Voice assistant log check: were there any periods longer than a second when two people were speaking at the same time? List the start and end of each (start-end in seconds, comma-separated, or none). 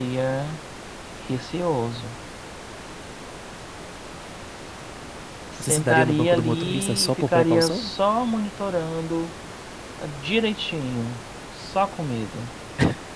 5.6-7.9